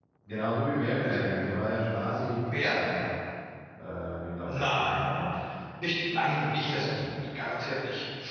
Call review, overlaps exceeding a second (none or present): none